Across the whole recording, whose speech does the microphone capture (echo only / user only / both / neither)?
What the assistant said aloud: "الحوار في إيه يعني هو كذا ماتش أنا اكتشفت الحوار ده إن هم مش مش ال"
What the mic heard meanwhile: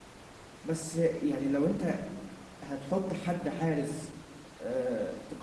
user only